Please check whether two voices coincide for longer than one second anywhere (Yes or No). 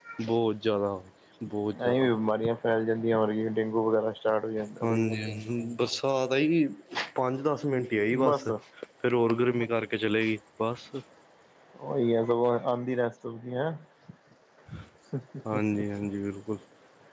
No